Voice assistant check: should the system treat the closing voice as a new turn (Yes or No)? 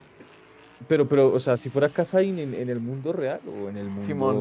Yes